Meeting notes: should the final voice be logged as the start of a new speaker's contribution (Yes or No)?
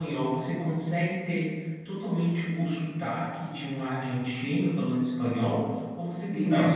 No